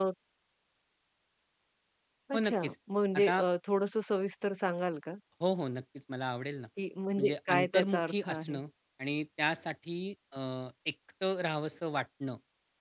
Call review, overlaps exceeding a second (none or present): present